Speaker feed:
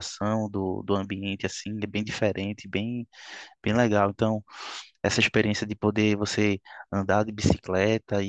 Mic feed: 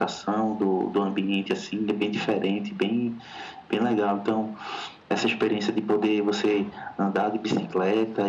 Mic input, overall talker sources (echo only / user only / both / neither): echo only